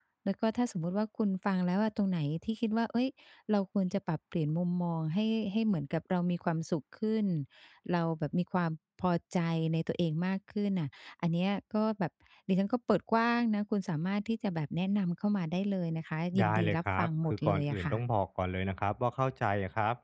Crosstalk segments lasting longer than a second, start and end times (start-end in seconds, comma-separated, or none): 16.4-18.0